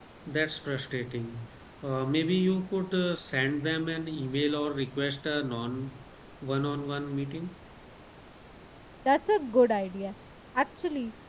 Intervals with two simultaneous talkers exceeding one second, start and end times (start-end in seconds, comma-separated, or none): none